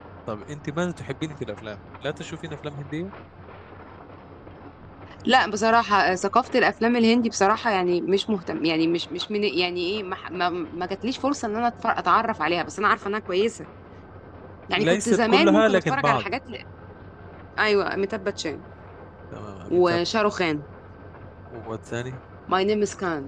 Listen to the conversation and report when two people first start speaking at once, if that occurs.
14.8 s

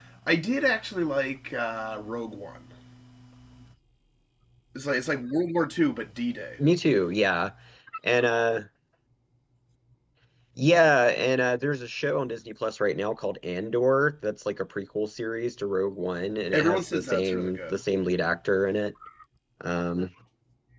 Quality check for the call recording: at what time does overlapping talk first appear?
16.5 s

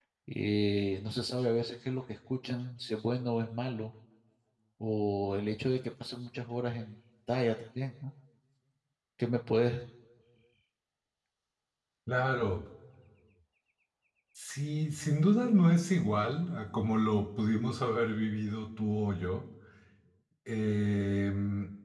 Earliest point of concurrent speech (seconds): none

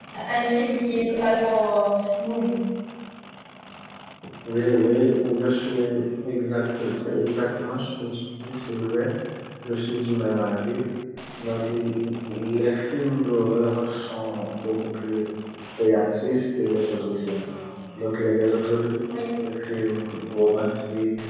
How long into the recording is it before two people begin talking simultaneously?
none

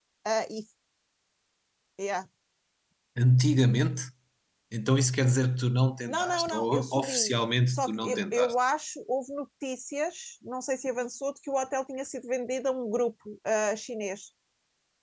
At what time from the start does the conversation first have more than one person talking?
6.1 s

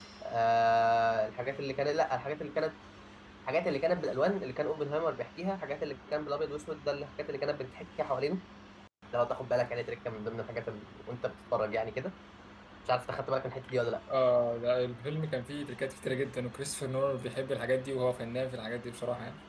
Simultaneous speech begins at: none

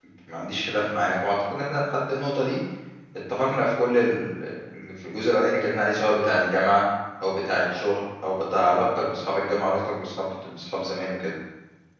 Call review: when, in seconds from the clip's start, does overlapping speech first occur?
none

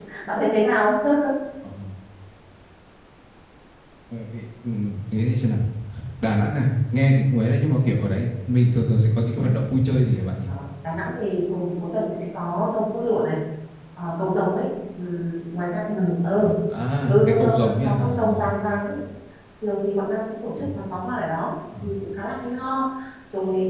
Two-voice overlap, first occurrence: 17.1 s

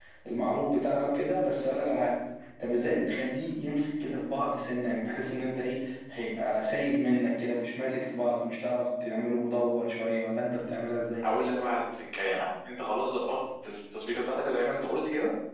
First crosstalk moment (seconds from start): none

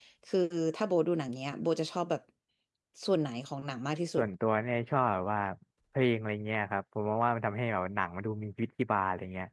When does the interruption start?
none

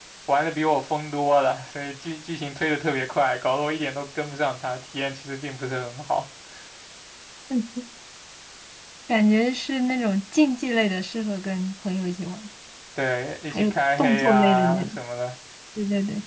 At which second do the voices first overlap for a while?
13.5 s

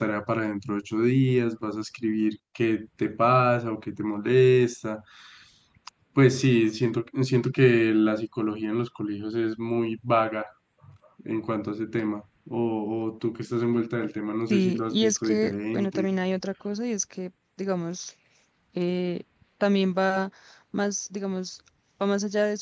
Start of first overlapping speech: 14.5 s

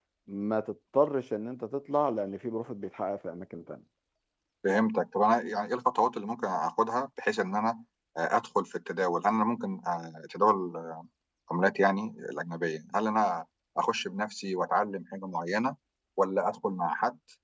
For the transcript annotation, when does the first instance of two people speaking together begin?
none

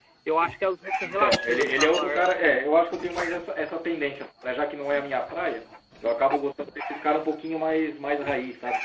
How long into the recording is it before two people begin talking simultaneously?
1.0 s

